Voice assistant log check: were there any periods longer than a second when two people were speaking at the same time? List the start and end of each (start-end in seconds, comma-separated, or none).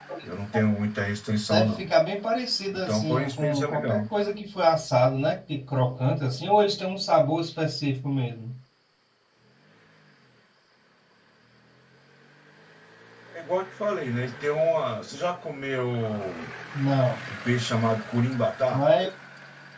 2.7-4.0